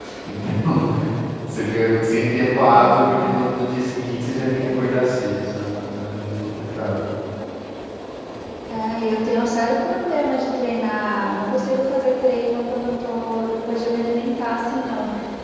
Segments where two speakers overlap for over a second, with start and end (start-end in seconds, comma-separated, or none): none